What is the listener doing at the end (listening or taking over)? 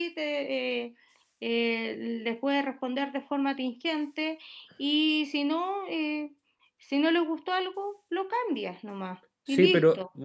taking over